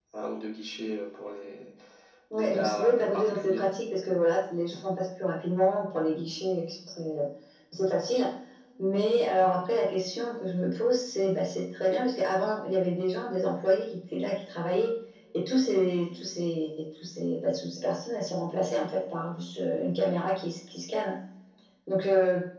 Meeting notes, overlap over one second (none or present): present